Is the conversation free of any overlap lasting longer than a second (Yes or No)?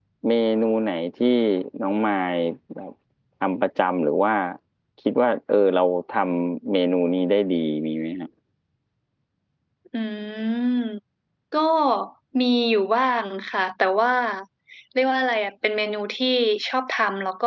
Yes